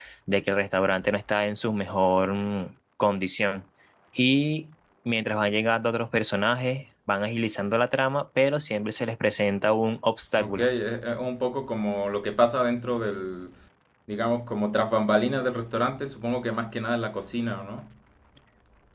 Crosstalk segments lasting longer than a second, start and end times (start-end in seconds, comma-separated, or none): none